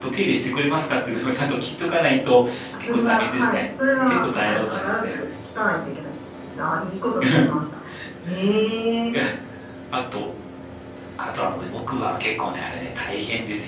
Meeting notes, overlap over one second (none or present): present